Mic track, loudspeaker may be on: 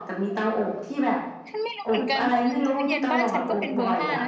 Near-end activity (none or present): present